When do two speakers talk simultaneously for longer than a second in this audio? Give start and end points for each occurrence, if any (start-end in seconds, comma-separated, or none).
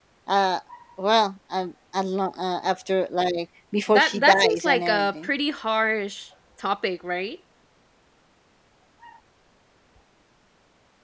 3.9-5.3